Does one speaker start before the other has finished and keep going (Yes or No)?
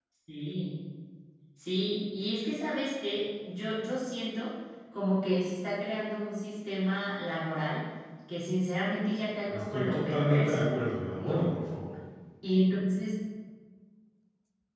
Yes